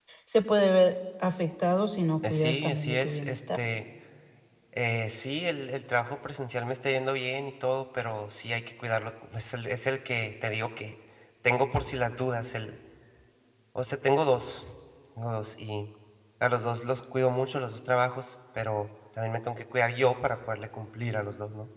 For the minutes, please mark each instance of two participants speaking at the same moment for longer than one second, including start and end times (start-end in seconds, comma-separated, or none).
2.3-3.6